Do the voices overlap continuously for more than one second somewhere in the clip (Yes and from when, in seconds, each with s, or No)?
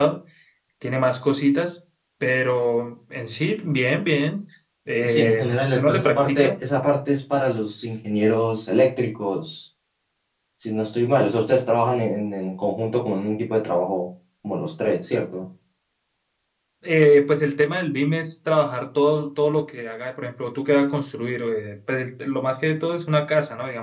Yes, from 5.0 s